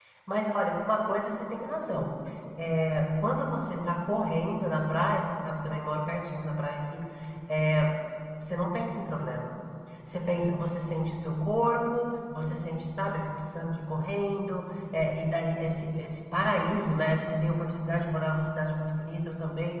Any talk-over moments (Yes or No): No